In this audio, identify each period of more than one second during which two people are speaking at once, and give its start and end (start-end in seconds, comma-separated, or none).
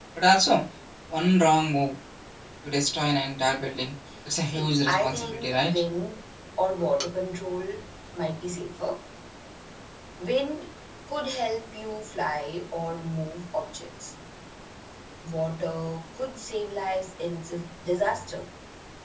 4.5-5.8